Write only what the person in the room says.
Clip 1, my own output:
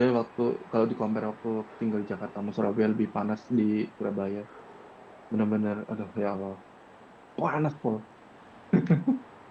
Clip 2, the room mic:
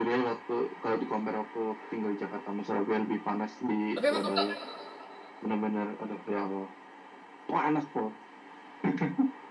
Tapi emang kakak

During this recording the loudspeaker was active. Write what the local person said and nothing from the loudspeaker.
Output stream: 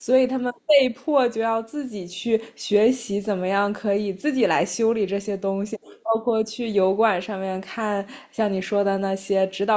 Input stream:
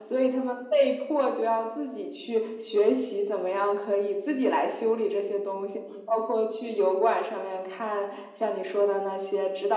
none

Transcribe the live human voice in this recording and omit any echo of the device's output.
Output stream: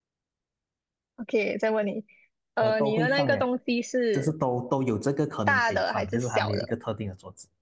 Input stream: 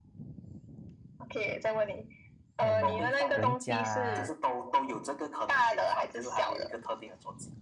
嗯，人家

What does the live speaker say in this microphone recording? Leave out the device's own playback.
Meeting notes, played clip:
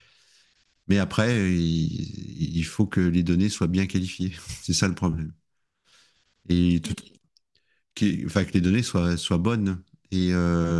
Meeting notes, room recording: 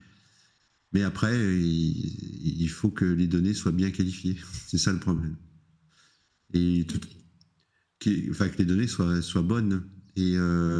none

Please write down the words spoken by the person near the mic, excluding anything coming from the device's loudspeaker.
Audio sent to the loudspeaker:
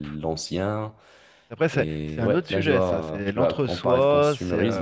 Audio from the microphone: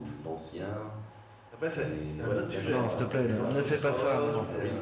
non, non, s'il te plaît, ne, ne fais pas ça, non, non.

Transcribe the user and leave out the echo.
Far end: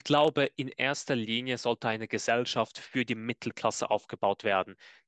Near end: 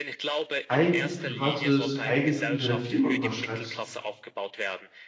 eigentlich privates Eigentum deiner Firma überschreibst

